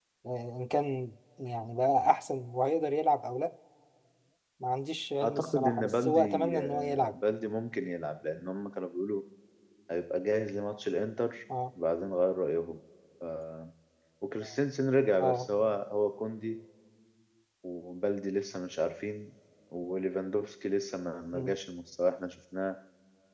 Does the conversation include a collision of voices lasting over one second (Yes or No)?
Yes